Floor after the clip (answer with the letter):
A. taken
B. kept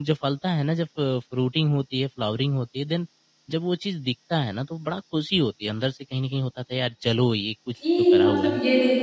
A